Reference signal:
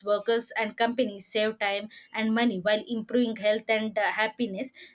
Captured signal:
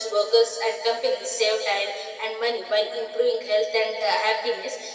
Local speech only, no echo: none

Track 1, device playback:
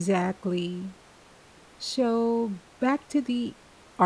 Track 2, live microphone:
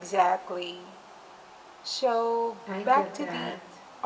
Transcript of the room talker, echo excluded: I get that.

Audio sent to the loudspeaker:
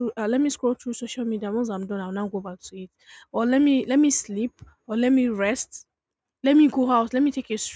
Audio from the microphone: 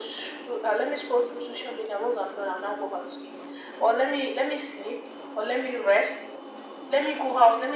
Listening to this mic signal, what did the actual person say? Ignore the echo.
none

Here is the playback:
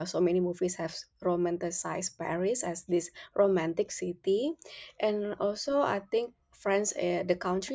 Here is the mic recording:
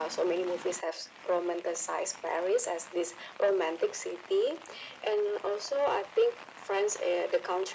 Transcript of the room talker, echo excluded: none

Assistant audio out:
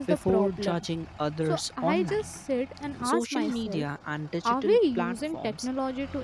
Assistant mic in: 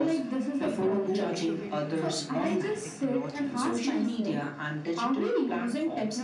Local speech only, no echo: maybe the goal shouldn't be less technology but

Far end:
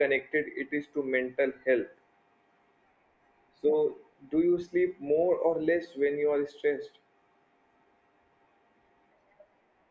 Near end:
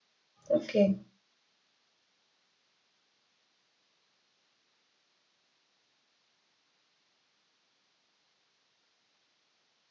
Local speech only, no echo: Okay.

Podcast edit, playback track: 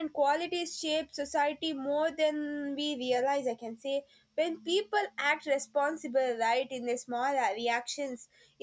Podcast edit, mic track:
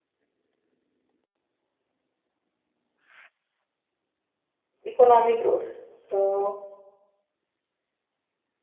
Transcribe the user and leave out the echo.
economic growth so

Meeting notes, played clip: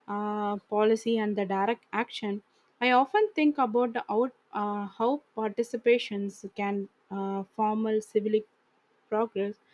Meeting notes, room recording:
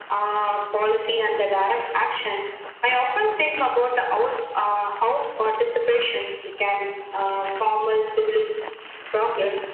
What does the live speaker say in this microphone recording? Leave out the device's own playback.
none

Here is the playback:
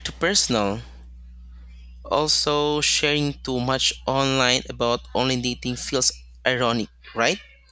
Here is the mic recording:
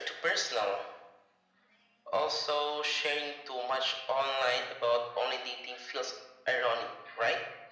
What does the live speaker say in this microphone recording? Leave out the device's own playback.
none

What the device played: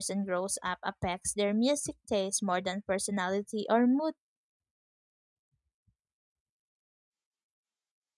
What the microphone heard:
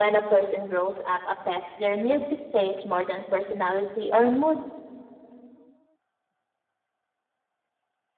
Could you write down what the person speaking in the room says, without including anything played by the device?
none

